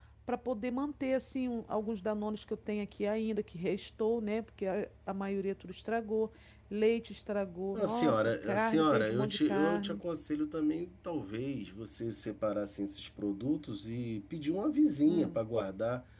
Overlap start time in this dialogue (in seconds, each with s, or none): 7.7 s